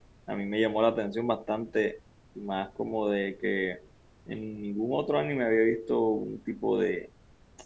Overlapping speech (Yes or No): No